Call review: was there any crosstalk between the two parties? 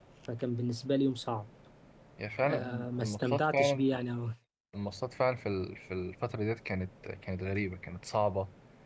Yes, from 2.4 s

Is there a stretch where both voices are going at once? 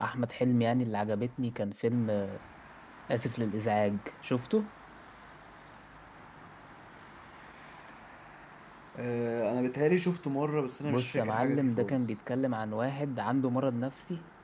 Yes, from 10.8 s

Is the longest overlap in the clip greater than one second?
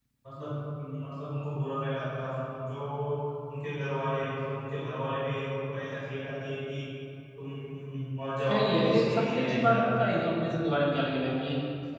Yes, from 8.5 s

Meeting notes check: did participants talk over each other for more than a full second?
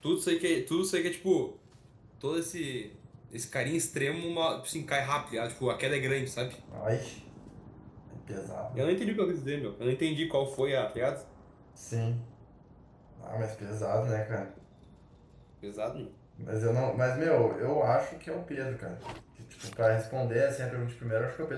No

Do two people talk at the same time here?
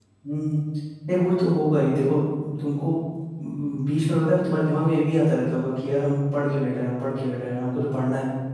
No

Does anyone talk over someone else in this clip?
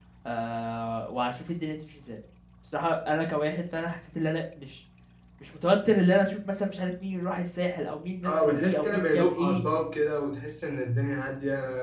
Yes, from 8.2 s

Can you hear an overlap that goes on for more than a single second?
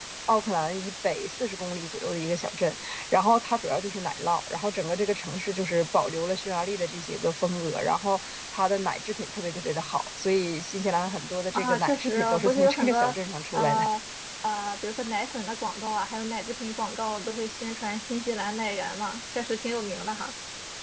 Yes, from 11.5 s

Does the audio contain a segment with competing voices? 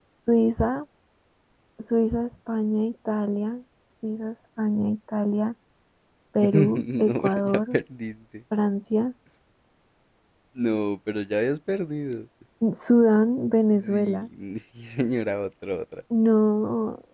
Yes, from 6.4 s

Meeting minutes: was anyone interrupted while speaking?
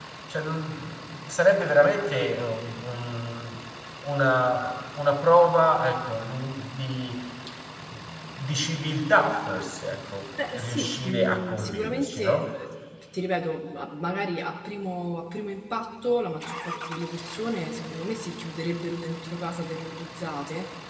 Yes, from 10.4 s

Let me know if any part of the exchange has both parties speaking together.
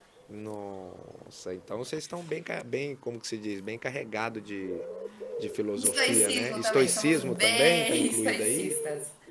Yes, from 5.8 s

